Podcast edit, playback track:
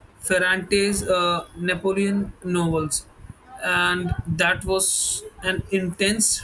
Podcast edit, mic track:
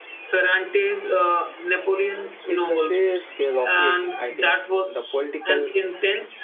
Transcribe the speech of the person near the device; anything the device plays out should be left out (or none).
It's the sheer scale of it, I think, the political